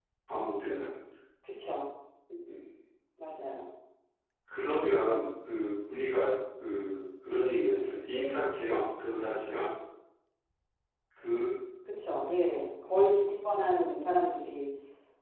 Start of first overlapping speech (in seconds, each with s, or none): none